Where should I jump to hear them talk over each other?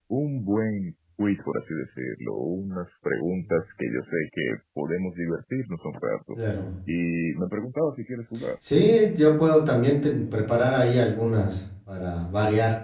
none

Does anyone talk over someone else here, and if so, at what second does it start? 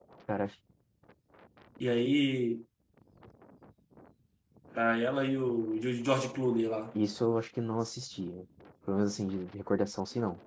none

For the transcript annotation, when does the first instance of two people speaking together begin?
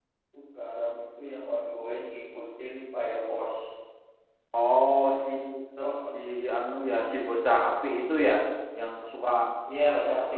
none

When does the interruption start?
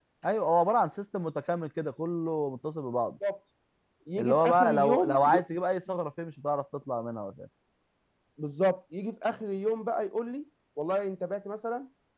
4.2 s

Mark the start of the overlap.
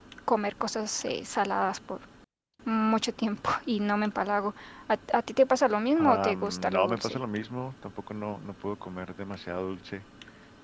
6.0 s

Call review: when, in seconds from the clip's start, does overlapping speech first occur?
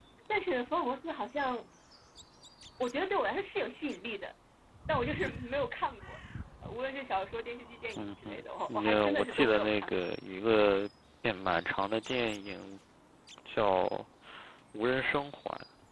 8.0 s

